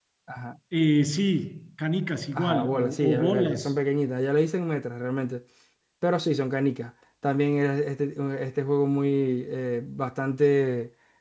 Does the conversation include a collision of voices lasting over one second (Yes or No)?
Yes